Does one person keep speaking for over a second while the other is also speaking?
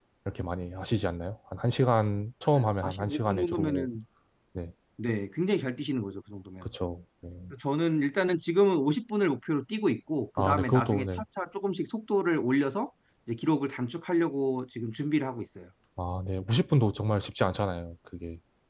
Yes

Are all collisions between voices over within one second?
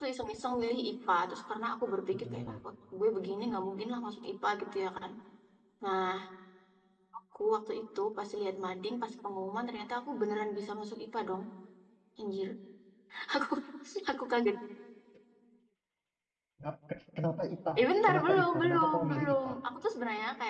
No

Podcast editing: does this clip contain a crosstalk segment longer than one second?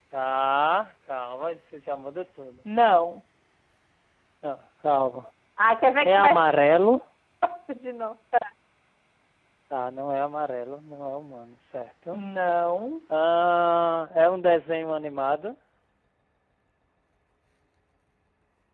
No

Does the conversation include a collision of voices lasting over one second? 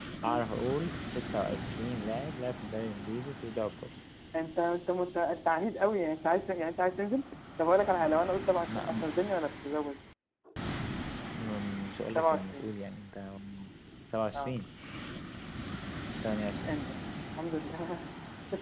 No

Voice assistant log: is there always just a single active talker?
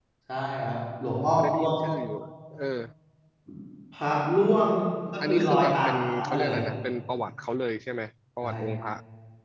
No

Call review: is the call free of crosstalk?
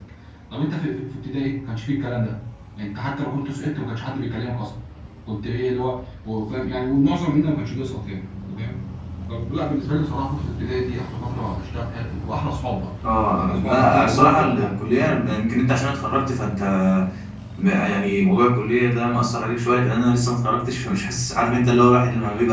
No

